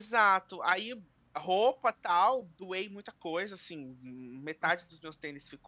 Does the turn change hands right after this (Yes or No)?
No